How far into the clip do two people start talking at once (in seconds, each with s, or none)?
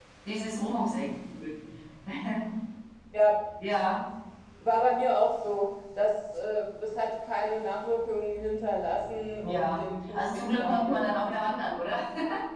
9.4 s